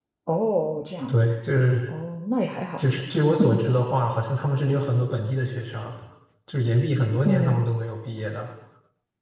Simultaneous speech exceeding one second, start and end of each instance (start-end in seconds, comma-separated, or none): none